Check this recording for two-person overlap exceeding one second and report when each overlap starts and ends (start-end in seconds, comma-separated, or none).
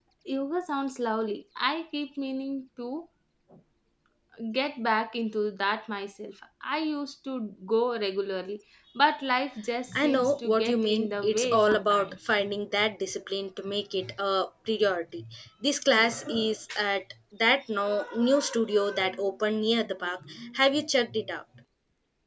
10.0-12.1